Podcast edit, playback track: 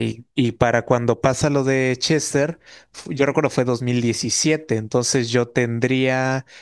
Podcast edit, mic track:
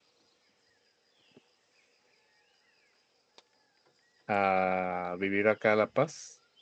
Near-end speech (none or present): present